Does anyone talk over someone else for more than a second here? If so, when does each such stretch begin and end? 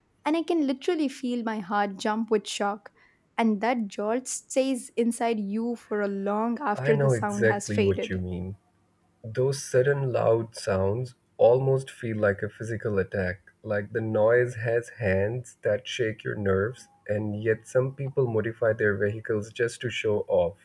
6.8-8.2

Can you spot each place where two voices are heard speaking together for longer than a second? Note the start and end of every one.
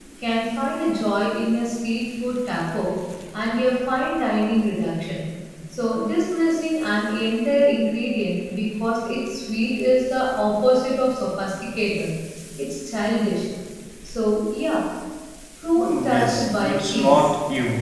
15.8-17.3

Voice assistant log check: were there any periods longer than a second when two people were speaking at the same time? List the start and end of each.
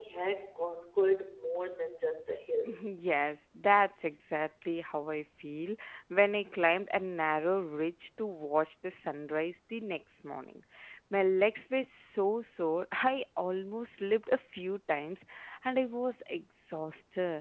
none

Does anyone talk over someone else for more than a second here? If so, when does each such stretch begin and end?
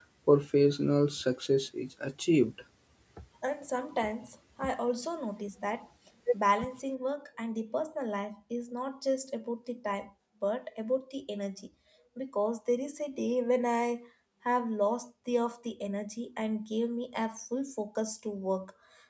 none

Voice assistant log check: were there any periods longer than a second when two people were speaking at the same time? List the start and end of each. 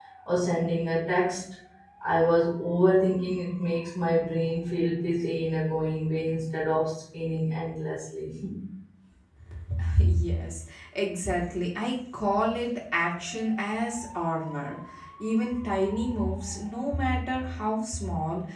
none

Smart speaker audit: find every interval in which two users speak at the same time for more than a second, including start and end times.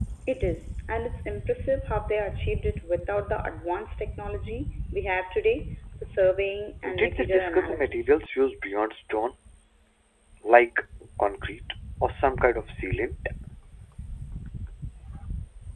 6.9-8.1

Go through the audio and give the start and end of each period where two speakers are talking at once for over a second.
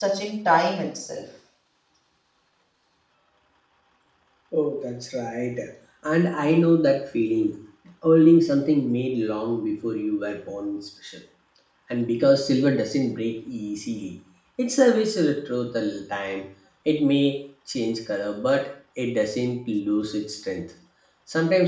none

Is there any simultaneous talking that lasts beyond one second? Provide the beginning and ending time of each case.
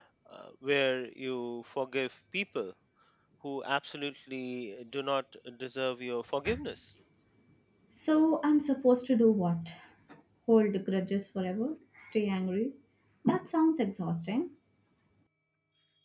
none

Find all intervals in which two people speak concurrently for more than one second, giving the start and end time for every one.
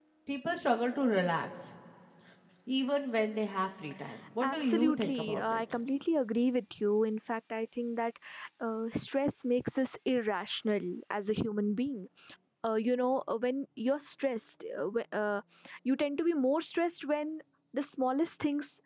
4.4-5.6

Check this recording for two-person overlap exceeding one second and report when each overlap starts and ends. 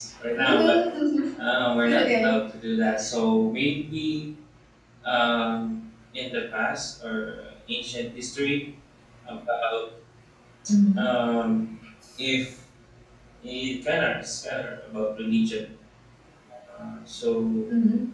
none

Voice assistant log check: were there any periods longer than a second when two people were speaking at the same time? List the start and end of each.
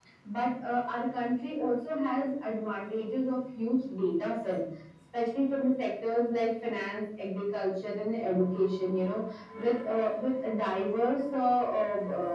none

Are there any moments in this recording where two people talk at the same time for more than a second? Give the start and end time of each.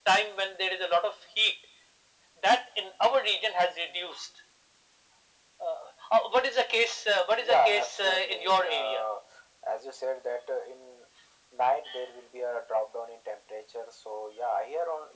7.4-9.0

